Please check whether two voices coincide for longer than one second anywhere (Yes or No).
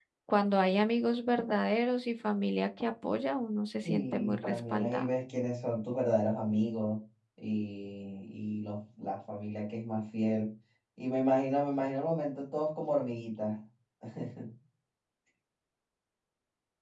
Yes